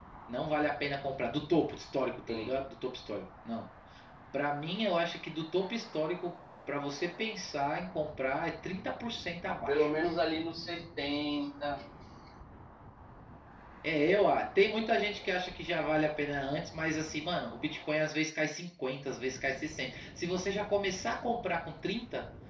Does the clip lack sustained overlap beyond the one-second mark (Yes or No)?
Yes